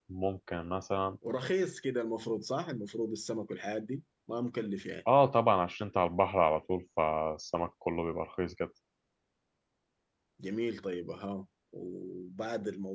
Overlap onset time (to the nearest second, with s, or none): none